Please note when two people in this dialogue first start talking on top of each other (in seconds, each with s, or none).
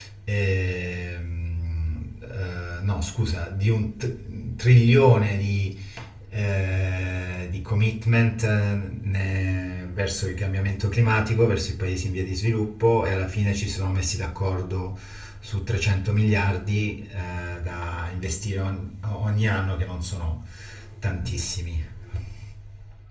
none